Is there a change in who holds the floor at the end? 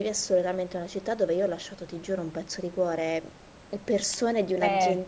No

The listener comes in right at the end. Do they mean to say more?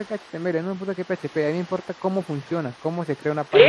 Yes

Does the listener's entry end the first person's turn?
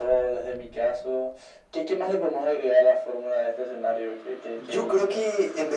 Yes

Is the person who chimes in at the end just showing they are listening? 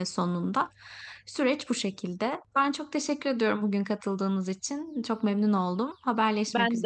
No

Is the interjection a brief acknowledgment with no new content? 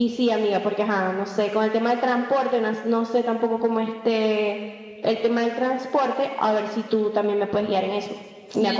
No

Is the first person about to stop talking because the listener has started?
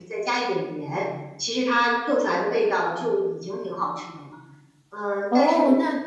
Yes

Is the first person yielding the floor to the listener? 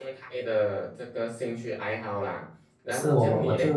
Yes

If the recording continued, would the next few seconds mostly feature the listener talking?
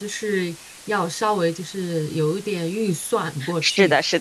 Yes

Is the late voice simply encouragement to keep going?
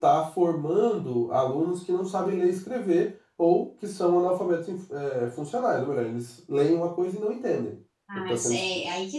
No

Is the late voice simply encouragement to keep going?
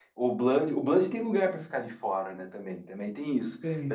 No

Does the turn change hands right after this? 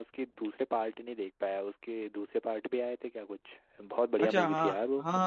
Yes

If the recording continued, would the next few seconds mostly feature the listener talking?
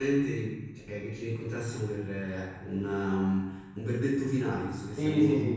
Yes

